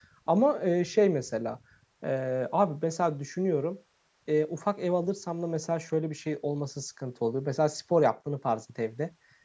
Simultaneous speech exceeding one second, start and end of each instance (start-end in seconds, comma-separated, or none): none